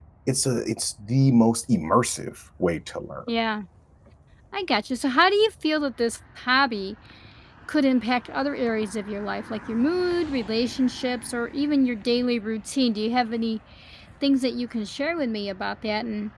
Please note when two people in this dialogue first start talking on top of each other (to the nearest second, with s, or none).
none